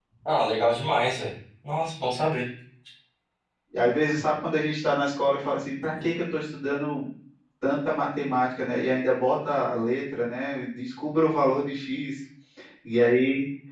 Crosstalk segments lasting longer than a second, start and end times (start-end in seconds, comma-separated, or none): none